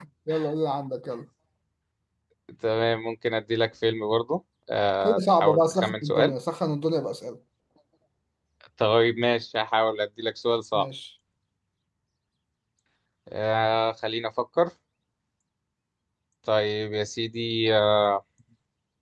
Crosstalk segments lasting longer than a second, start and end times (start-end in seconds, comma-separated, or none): 5.0-6.3